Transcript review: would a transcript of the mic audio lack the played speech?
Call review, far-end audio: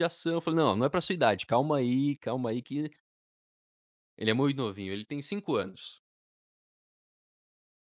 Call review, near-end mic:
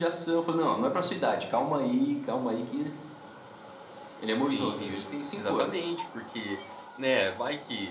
No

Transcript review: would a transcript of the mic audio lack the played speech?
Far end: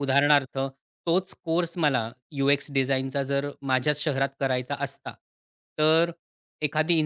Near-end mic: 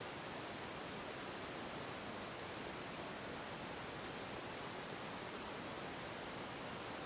Yes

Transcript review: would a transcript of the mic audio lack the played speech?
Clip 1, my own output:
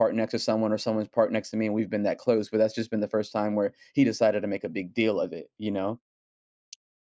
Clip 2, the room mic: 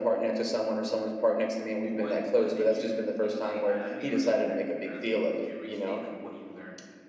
No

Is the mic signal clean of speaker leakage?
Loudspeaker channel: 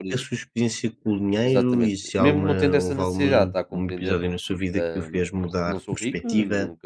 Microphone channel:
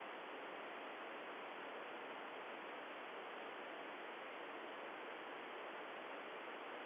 Yes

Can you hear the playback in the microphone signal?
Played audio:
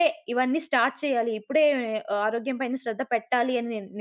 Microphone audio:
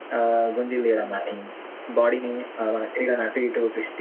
No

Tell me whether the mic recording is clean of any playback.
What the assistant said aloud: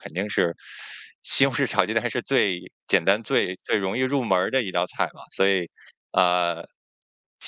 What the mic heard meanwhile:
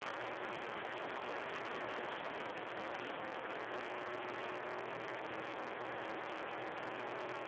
Yes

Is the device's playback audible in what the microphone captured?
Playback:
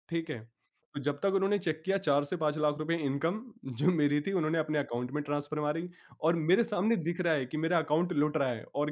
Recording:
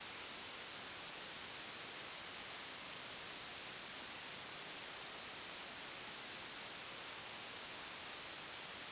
No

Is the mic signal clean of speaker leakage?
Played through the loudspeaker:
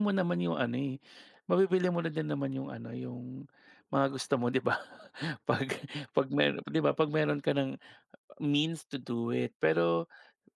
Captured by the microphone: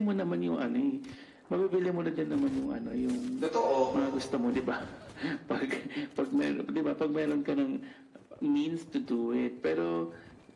No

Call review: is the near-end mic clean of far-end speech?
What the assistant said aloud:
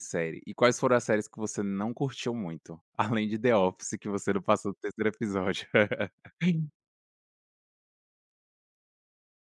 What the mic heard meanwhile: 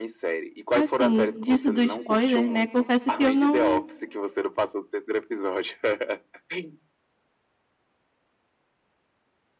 No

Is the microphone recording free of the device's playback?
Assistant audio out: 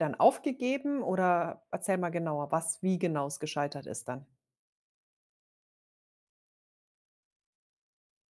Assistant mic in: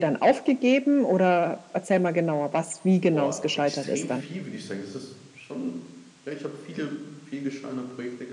No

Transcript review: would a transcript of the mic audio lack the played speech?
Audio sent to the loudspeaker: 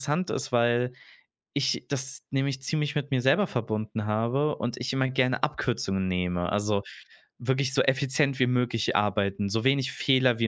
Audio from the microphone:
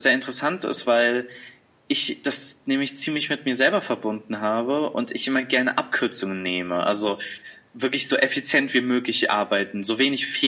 No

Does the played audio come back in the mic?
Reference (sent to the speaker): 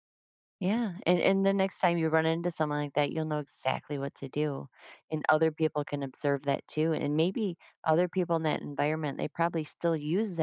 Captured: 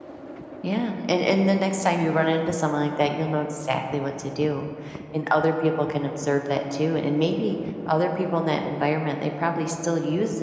Yes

